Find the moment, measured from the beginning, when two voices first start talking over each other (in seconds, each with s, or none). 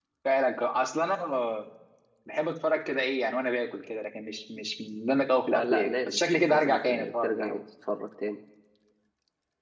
5.5 s